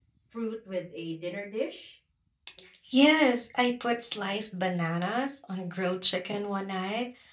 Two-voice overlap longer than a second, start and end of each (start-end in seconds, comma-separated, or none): none